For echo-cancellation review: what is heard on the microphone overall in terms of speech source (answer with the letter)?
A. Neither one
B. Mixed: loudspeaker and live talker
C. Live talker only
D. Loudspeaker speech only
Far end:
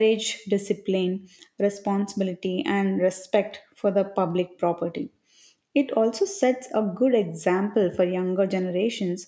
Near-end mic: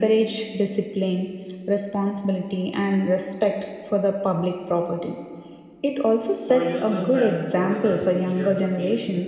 B